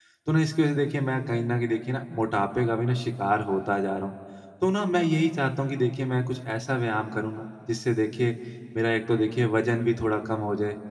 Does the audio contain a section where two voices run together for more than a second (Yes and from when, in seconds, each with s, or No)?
No